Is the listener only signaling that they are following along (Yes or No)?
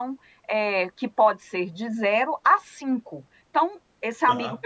Yes